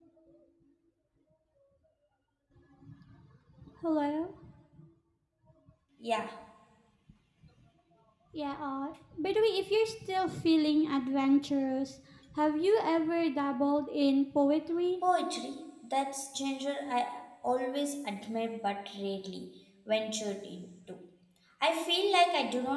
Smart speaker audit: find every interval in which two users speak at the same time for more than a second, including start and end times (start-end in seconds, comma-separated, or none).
none